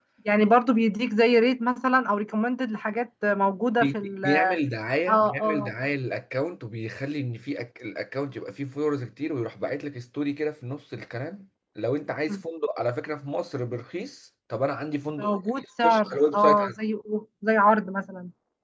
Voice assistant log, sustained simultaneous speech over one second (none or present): present